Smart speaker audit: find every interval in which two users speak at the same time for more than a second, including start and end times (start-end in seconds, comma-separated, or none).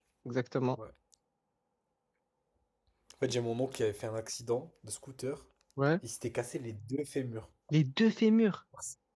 none